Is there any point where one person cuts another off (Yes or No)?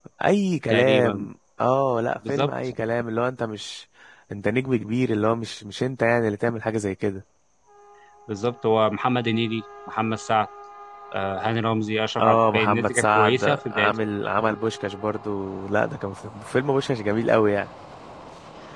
Yes